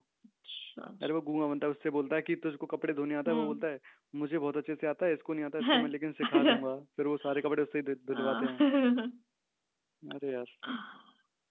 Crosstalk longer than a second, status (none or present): none